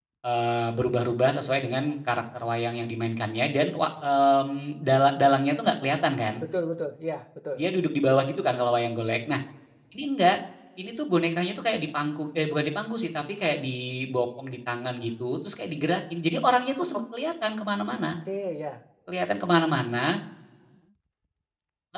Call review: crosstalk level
none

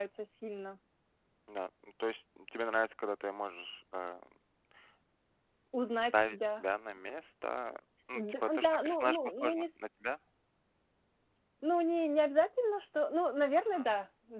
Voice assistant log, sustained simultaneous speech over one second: present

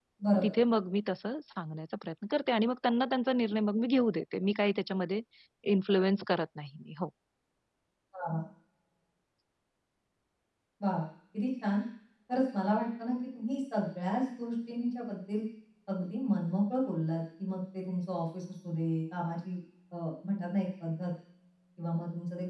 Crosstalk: none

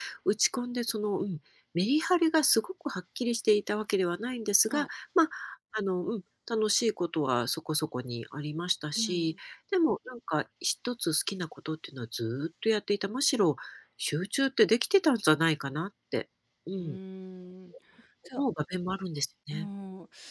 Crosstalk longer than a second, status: none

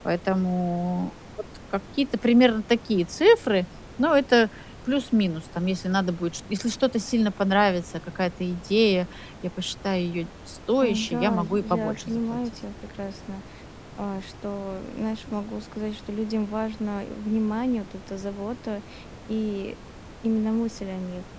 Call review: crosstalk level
present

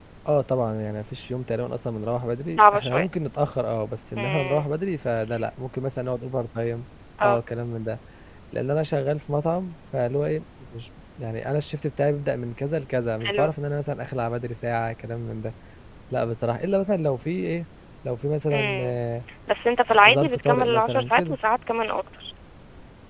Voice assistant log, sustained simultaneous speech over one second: present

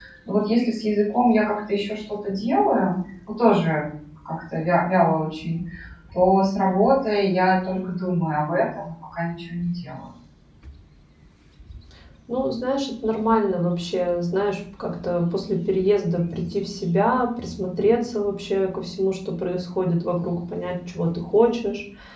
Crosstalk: none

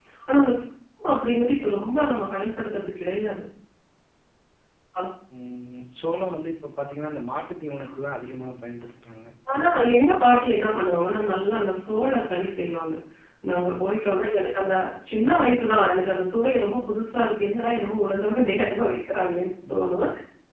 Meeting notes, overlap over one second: none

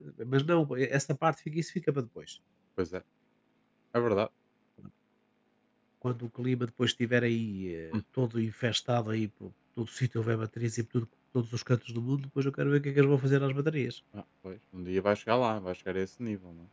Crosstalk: none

